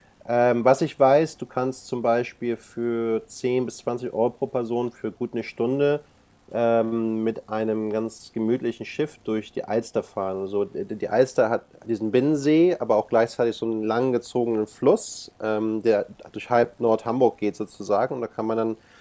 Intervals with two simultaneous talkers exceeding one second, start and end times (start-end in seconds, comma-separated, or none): none